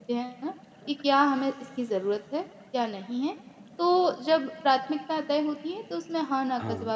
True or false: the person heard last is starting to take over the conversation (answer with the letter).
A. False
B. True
A